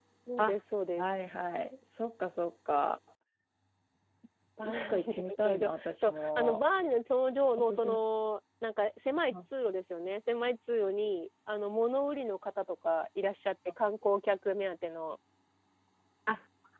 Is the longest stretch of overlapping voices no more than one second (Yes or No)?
No